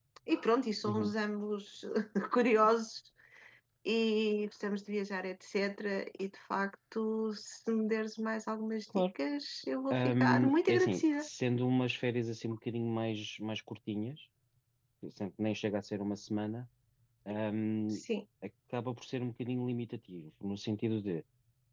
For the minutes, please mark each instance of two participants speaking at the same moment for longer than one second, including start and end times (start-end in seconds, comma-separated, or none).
9.9-11.3